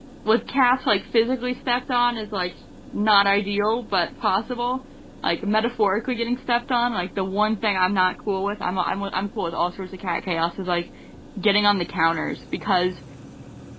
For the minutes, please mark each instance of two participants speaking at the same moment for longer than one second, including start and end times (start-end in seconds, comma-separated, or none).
none